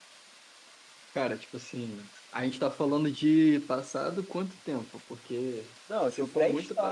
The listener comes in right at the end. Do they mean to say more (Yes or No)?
Yes